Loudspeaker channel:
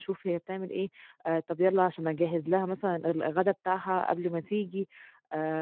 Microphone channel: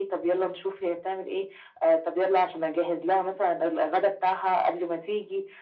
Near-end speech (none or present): none